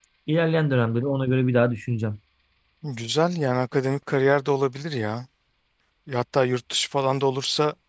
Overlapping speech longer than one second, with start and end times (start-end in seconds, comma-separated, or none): none